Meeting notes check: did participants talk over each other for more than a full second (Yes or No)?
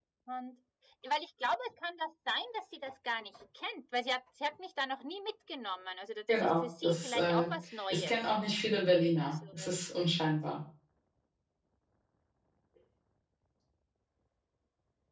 Yes